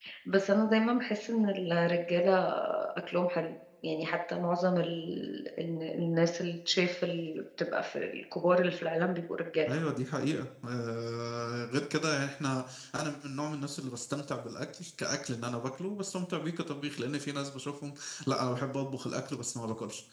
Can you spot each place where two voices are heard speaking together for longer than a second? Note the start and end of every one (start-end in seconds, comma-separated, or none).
none